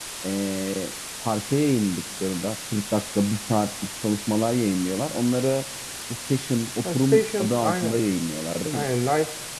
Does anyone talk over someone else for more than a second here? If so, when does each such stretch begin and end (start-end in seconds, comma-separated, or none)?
6.8-8.0